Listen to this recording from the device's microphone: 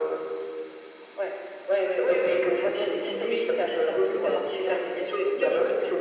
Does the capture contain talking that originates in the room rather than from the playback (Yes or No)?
Yes